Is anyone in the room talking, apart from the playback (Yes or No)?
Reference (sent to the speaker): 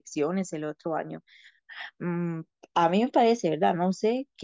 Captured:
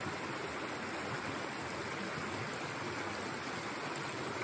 No